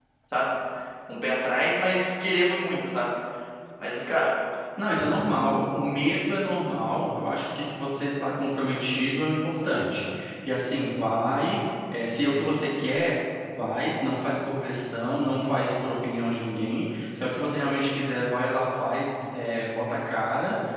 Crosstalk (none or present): none